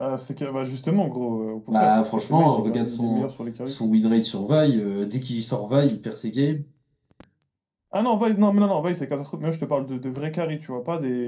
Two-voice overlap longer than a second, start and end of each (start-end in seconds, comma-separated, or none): 1.7-3.3